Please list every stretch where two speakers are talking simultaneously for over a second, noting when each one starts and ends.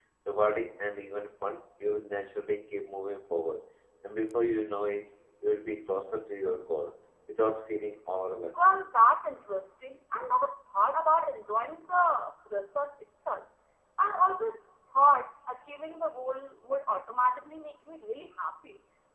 none

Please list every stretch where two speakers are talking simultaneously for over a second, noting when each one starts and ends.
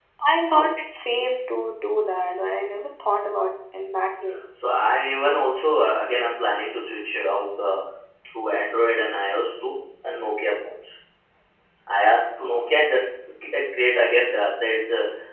none

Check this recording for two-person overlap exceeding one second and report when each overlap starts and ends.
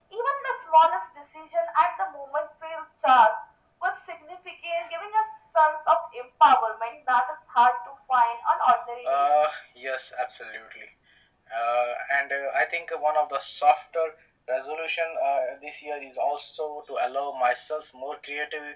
none

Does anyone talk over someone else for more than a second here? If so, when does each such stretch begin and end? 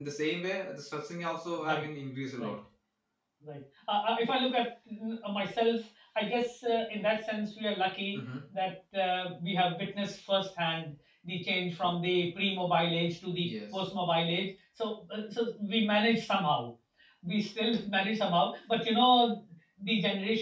none

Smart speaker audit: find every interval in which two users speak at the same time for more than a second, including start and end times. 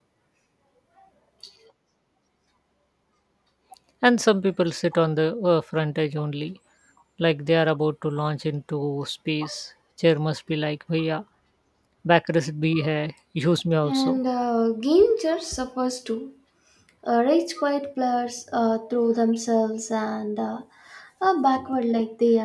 none

